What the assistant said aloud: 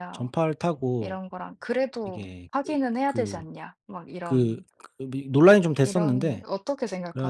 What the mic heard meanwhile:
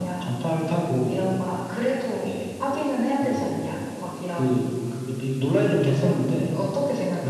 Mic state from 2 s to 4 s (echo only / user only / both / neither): echo only